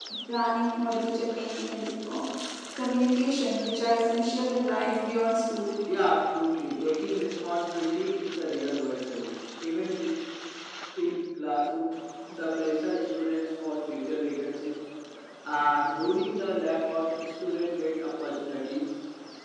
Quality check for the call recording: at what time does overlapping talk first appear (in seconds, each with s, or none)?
none